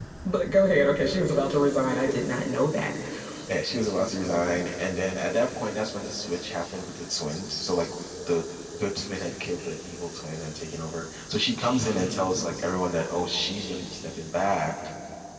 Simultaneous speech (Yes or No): No